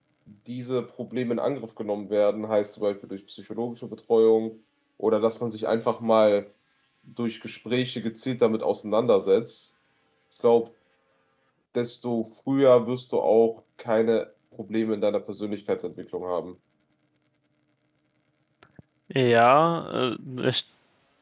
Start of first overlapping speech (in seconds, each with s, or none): none